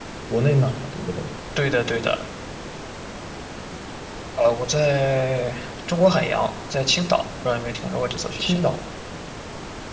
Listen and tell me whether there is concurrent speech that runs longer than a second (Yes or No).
No